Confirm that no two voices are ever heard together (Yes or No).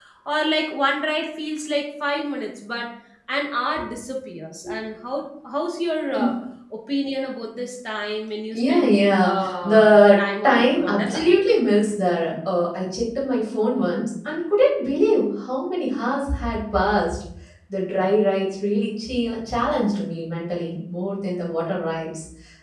No